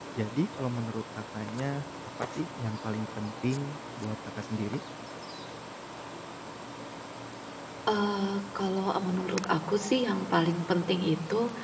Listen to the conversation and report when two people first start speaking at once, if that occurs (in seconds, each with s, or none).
none